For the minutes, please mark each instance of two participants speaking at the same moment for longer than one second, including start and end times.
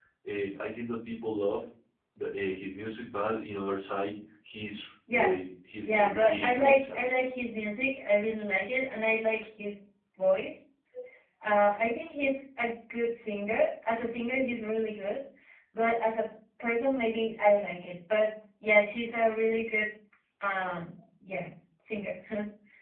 5.8-7.2

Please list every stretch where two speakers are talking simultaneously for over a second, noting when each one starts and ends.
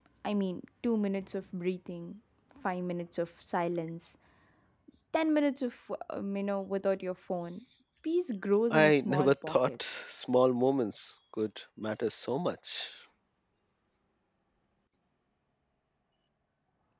8.7-10.0

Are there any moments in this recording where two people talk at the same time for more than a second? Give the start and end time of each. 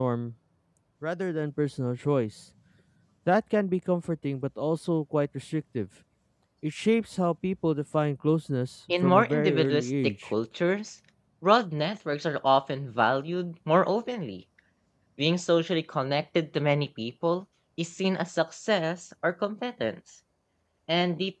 9.0-10.3

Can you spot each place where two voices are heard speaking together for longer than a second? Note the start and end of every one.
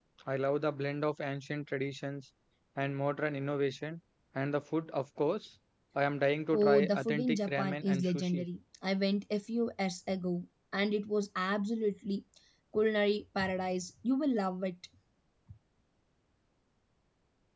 6.5-8.4

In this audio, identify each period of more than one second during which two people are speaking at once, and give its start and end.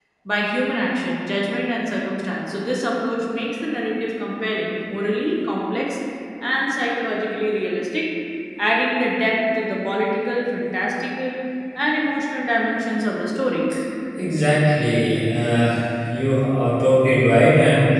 none

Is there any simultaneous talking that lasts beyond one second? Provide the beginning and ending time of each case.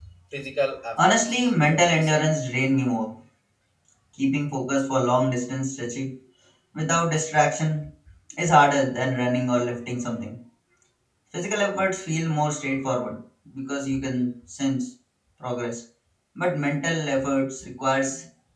1.0-2.3

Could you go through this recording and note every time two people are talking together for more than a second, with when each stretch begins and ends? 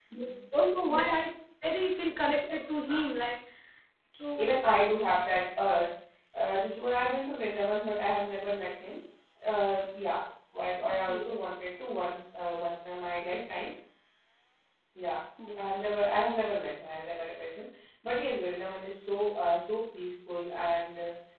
none

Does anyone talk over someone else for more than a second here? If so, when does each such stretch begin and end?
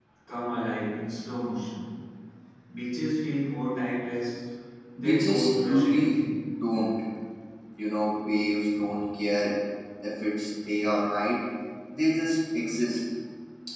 5.0-6.2

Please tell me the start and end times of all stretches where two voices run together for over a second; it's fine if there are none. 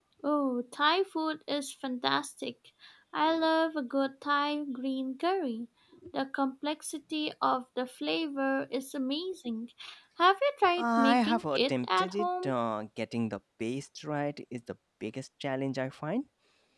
10.8-12.5

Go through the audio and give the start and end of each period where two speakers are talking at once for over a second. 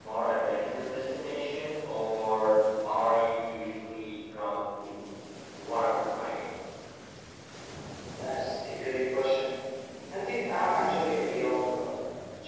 none

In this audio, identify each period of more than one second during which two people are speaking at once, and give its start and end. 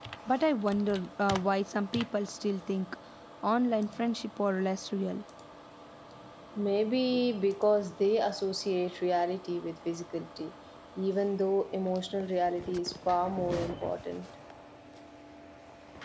none

